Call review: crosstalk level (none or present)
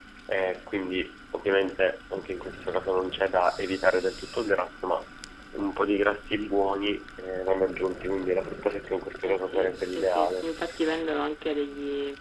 present